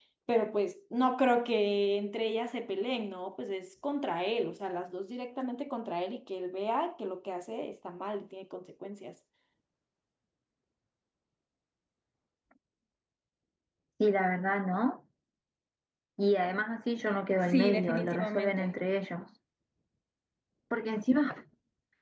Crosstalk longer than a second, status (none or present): present